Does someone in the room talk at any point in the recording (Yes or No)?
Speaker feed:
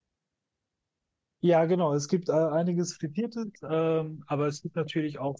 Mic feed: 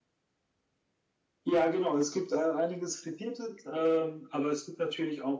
No